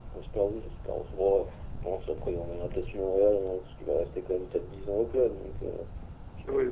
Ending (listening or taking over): taking over